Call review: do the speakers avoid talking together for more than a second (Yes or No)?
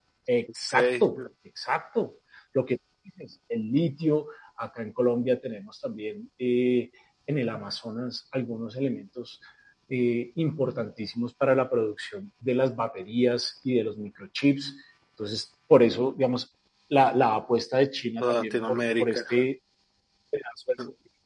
No